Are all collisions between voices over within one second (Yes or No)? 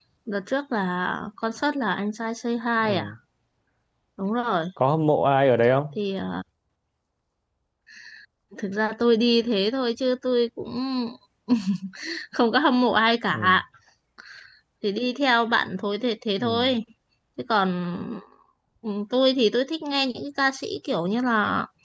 Yes